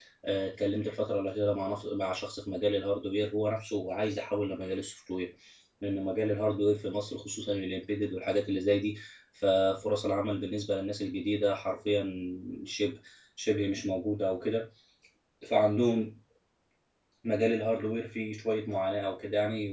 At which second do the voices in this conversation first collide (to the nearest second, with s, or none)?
none